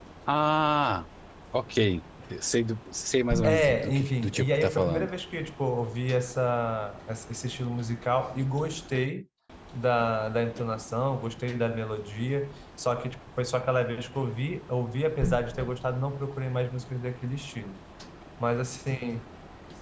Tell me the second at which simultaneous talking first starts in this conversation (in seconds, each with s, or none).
3.4 s